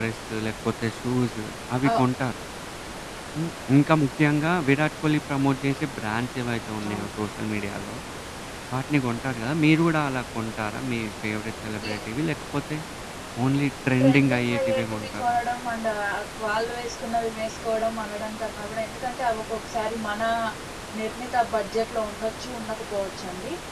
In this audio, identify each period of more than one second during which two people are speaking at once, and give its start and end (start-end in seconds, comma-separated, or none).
14.0-15.4